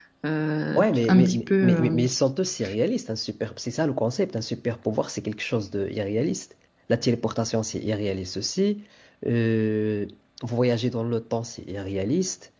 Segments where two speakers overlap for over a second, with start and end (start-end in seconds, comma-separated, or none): 0.8-2.0